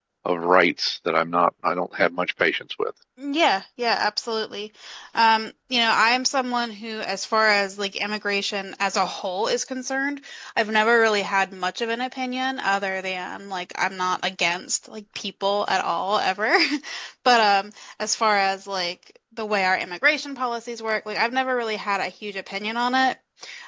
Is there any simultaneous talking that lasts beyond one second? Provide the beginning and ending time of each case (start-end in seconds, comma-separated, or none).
none